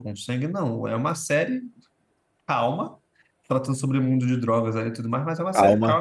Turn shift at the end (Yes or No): Yes